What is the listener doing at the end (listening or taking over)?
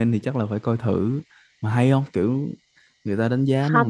taking over